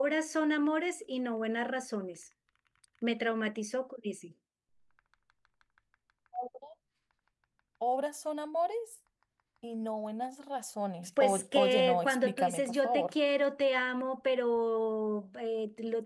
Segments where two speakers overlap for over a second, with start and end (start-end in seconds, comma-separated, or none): 11.2-13.1